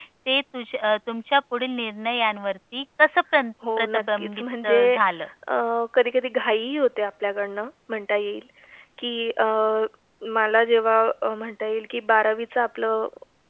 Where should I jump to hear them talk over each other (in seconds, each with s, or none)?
3.6 s